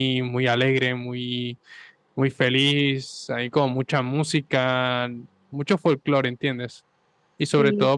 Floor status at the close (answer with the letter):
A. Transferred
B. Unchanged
B